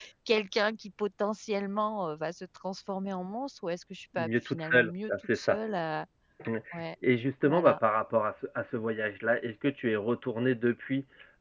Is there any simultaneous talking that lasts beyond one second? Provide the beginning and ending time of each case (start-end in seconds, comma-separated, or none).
4.2-5.6